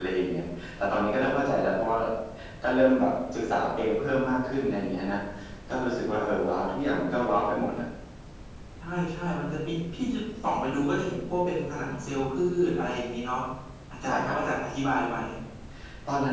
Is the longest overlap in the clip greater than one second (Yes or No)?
No